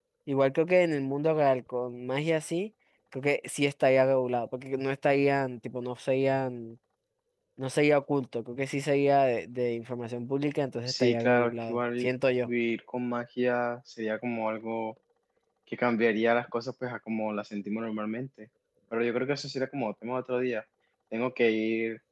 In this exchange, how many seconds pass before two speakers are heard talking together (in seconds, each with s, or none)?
10.9 s